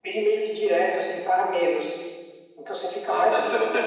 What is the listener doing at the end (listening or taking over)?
taking over